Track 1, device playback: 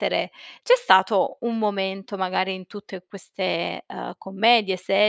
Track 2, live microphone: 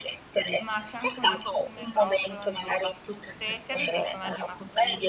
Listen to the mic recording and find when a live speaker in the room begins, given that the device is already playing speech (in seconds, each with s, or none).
0.6 s